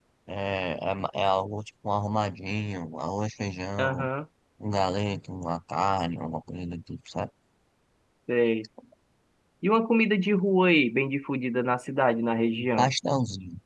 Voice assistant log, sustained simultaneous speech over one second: none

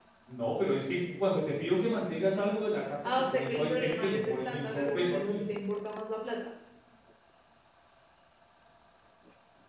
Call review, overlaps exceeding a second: present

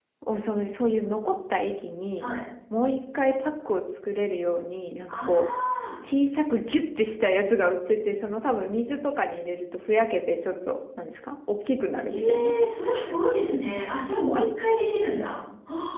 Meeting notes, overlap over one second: none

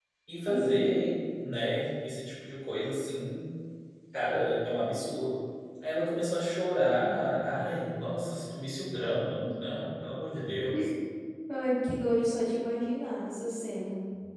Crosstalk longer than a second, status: none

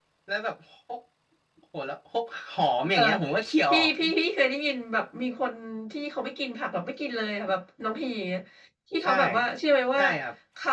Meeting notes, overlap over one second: none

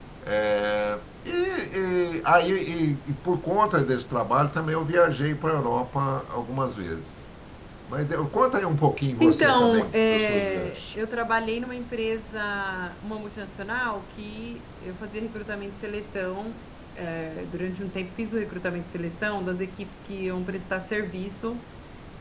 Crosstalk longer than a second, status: present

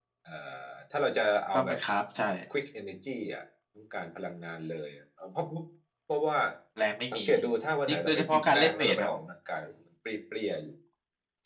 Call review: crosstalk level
present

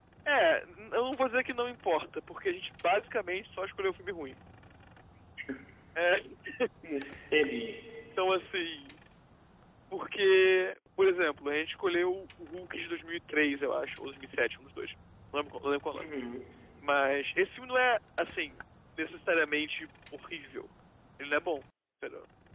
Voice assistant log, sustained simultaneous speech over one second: none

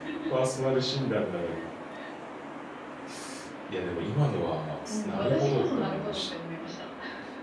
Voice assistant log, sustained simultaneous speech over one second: present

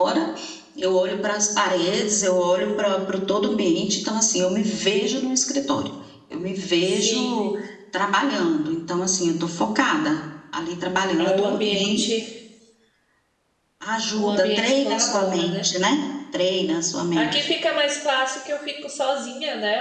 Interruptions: present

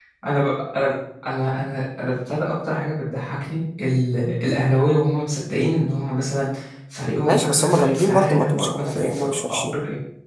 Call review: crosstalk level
present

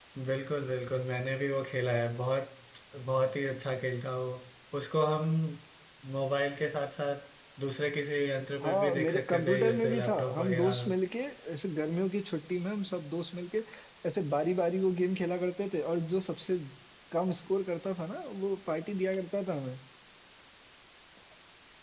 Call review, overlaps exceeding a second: present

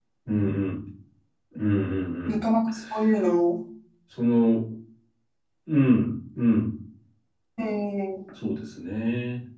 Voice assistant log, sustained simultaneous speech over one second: none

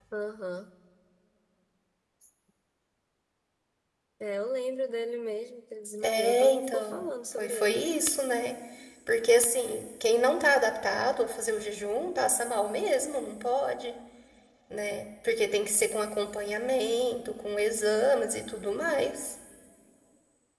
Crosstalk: present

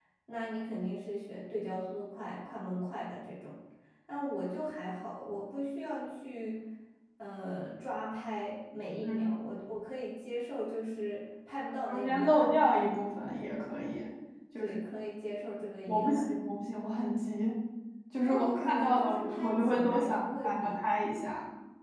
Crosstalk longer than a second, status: present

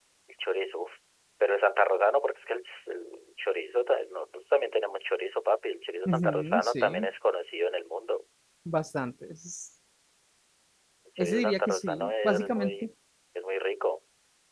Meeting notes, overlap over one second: present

